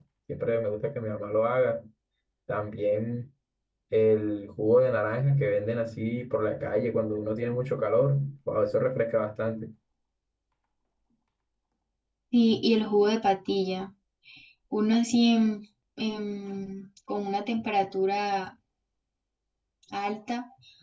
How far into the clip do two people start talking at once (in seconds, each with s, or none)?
none